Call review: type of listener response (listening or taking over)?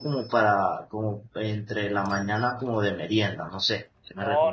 taking over